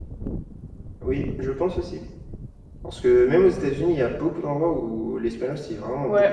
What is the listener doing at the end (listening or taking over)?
taking over